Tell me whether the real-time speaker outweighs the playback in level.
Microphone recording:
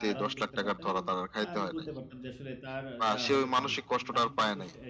No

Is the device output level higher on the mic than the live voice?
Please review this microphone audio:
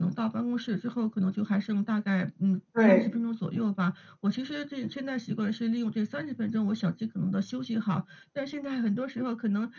No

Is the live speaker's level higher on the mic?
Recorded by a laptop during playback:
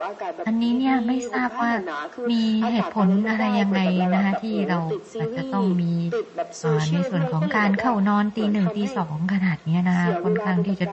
Yes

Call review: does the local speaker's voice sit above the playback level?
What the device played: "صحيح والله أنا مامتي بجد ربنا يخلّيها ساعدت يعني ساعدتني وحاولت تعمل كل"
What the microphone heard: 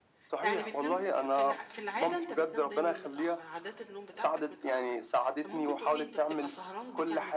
No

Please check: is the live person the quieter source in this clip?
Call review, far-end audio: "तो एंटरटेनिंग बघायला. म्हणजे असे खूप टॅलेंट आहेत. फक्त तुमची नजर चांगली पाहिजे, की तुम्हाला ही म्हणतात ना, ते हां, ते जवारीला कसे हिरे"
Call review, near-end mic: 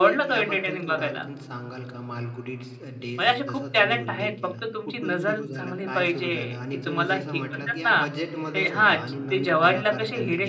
Yes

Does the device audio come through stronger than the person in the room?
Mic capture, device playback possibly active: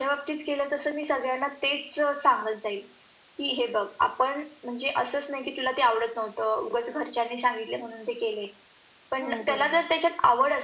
Yes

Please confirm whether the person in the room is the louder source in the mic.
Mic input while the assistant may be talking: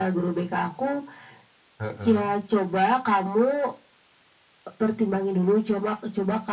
No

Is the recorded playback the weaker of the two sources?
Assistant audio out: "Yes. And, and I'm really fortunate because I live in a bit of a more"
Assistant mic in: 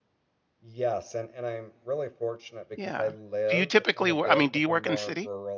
Yes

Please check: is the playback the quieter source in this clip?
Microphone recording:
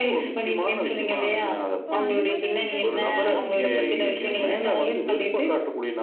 No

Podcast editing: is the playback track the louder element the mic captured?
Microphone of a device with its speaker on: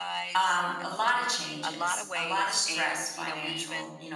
No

